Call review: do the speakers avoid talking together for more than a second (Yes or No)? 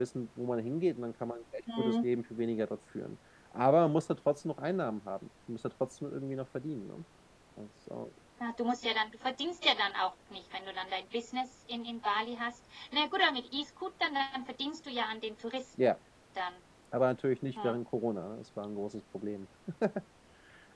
Yes